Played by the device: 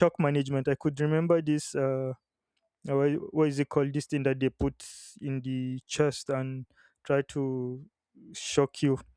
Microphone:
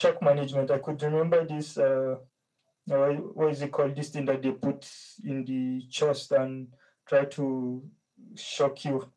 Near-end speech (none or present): none